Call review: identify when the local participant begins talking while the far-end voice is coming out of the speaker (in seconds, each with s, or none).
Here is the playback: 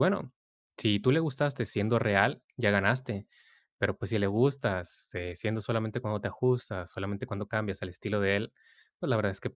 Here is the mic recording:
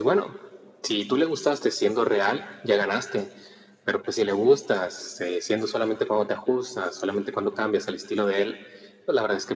none